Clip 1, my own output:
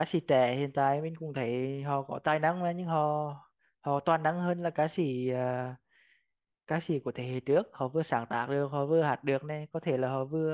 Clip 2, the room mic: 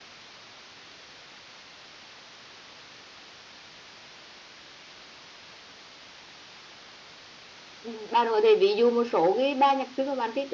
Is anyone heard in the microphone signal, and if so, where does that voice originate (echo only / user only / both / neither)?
user only